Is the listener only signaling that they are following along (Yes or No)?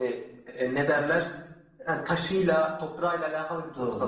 No